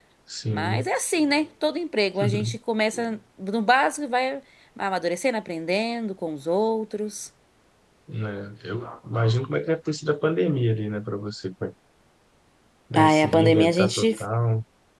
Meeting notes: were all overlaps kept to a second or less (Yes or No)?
No